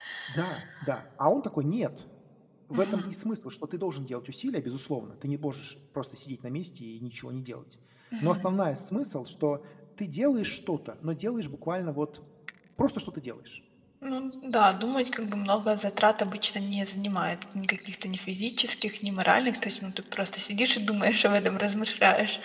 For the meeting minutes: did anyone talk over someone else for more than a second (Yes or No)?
No